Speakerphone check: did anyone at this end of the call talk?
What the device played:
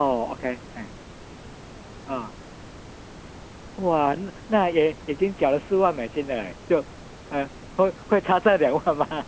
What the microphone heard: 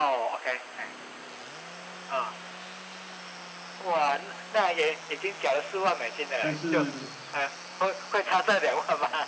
Yes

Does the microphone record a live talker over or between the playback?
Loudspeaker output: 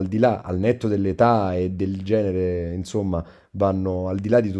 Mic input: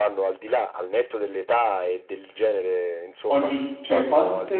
Yes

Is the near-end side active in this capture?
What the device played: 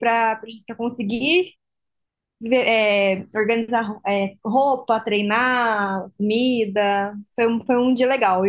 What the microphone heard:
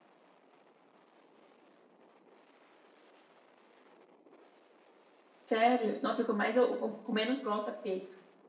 Yes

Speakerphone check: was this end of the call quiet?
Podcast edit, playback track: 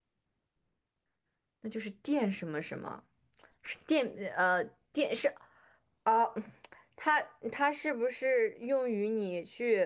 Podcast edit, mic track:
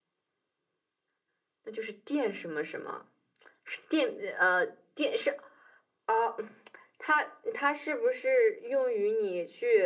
Yes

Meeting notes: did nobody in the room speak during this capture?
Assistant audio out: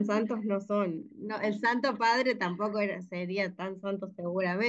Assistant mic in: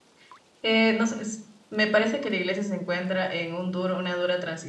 No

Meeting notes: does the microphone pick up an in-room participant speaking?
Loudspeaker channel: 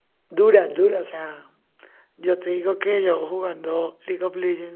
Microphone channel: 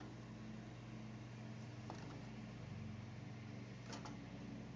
No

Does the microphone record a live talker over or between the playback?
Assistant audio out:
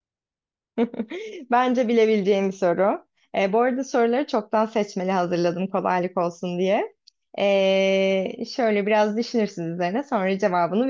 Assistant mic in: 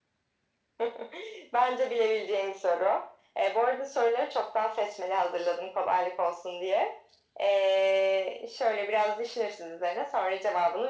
No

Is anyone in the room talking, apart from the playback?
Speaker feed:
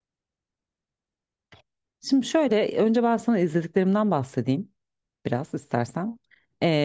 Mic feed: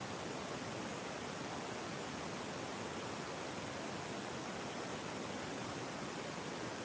No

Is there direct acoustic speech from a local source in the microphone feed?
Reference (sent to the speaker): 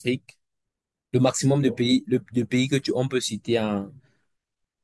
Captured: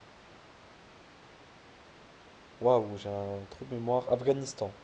Yes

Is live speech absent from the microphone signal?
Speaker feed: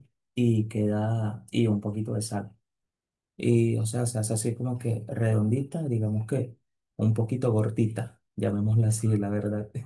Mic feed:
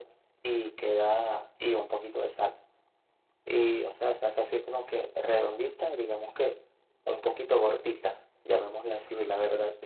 Yes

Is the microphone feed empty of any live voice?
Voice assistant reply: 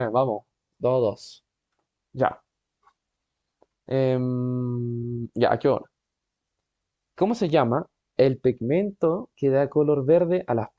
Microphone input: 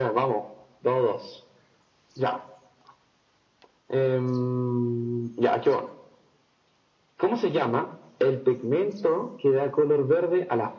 Yes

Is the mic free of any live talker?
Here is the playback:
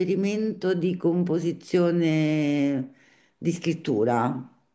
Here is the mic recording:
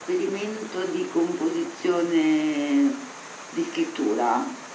Yes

